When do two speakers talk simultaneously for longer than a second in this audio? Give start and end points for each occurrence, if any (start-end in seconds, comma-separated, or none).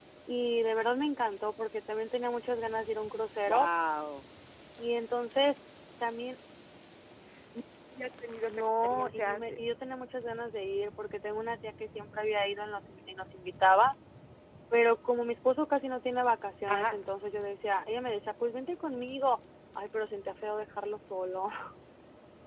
8.5-9.7